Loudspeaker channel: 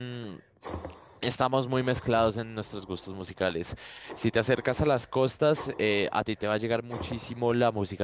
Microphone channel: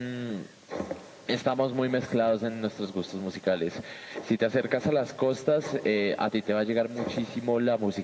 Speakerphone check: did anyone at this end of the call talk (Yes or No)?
No